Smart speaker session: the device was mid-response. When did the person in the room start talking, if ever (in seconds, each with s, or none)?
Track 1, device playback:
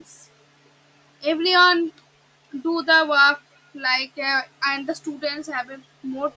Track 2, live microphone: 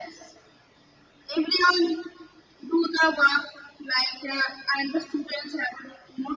none